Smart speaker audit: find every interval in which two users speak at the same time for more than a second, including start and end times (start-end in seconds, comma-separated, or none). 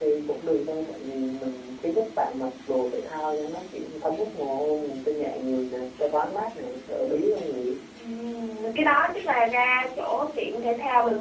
none